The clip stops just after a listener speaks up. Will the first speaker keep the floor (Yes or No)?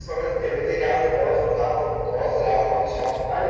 No